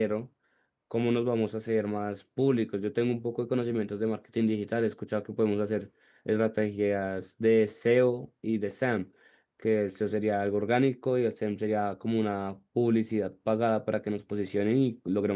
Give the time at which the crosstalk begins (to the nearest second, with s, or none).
none